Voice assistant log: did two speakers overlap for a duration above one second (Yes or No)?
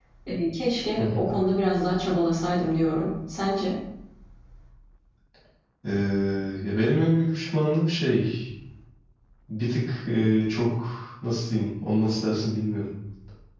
No